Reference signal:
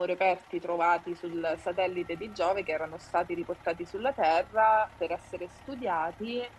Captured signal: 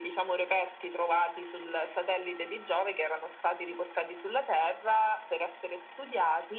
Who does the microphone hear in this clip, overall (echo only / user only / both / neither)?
echo only